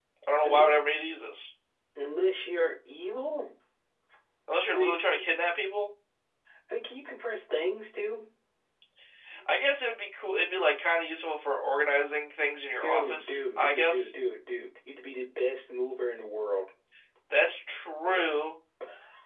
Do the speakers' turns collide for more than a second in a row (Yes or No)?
Yes